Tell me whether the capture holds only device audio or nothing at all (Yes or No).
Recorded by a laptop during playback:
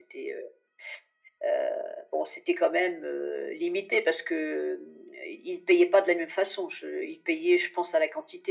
Yes